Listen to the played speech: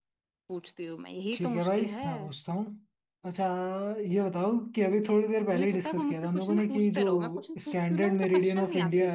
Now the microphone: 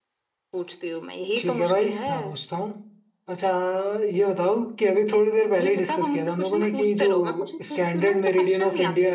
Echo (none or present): present